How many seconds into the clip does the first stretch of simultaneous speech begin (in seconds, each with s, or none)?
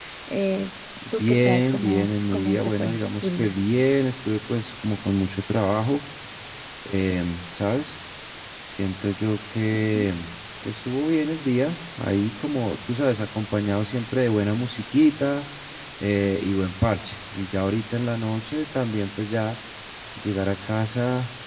1.2 s